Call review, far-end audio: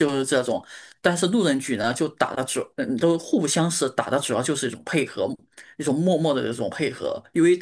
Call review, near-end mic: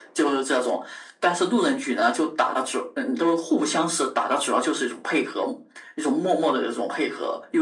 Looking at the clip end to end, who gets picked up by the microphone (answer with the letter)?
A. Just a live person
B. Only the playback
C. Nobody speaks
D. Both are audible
B